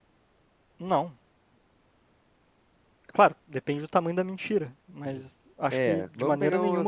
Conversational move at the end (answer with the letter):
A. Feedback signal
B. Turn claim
B